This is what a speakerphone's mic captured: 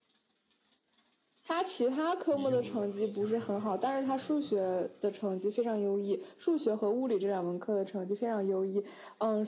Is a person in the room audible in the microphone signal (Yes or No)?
Yes